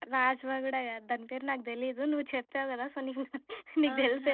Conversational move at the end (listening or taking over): taking over